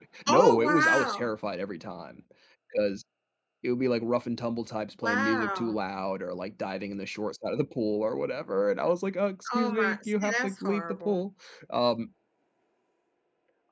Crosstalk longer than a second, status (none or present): present